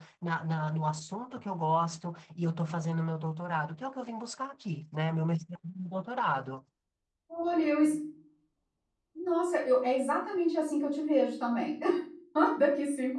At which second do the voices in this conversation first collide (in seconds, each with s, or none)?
none